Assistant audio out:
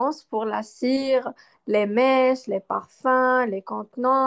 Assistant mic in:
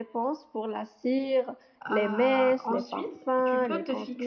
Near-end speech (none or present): present